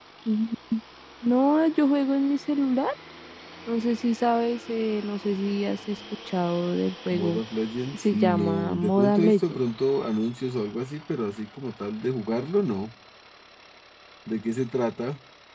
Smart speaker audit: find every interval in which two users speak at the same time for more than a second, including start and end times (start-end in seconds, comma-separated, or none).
7.9-9.6